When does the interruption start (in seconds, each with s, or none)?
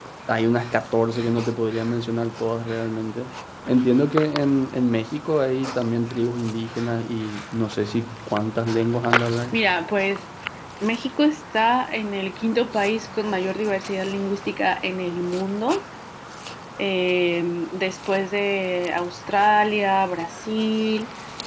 none